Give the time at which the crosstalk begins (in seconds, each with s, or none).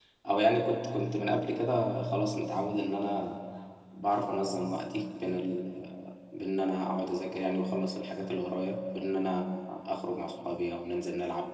none